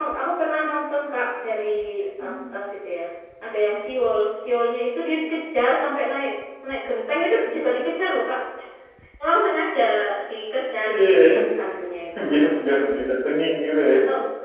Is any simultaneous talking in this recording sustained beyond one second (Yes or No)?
No